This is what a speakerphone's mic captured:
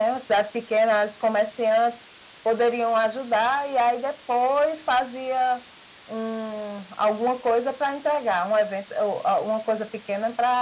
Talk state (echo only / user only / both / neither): echo only